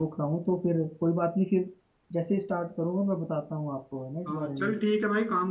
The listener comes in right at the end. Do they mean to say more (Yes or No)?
Yes